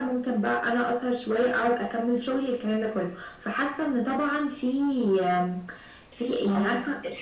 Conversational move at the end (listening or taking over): taking over